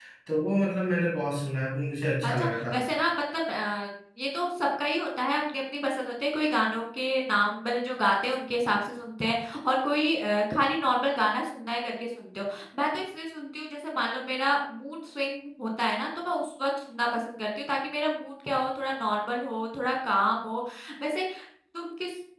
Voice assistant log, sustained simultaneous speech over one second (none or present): none